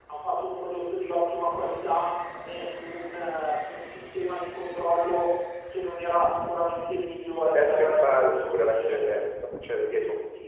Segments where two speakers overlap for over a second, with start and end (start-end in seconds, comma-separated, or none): 7.5-9.2